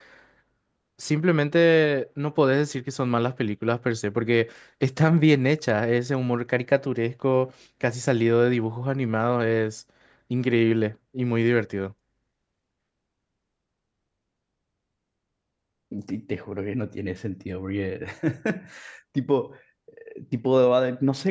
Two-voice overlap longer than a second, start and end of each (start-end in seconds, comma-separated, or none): none